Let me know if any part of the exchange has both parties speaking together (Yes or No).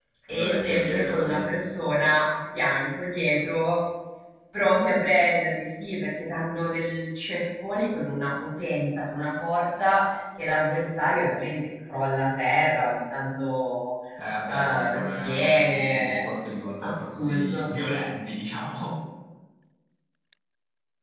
Yes